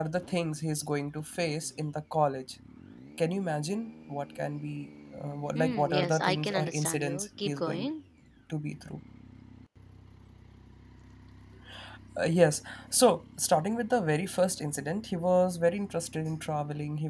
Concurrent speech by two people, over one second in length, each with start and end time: 5.5-7.9

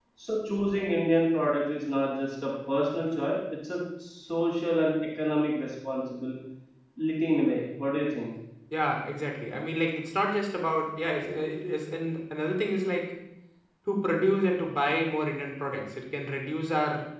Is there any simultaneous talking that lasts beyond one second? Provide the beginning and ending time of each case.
none

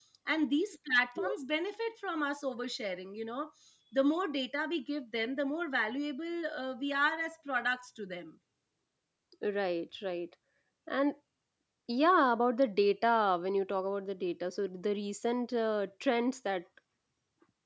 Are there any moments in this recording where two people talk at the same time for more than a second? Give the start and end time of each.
none

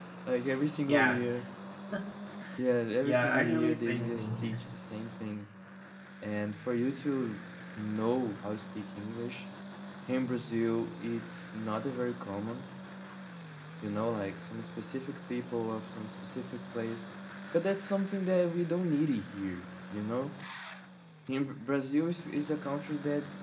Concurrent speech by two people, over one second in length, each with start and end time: 3.0-4.6

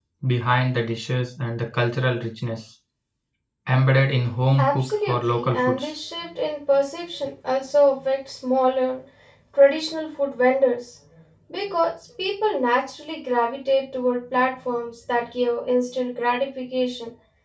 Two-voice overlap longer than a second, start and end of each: 4.6-5.9

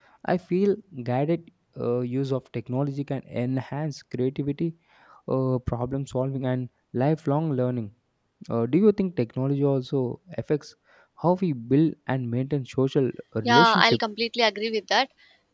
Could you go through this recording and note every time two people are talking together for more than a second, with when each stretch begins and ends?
none

